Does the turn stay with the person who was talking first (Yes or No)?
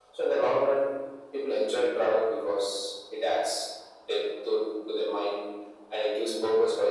Yes